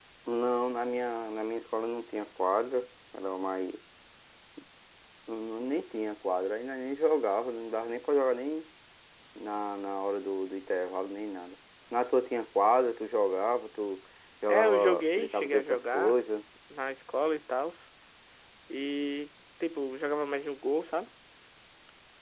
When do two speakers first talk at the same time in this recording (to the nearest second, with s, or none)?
14 s